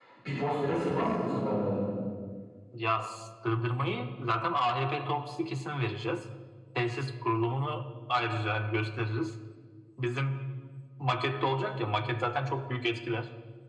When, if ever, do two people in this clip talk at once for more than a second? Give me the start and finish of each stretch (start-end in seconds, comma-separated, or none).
none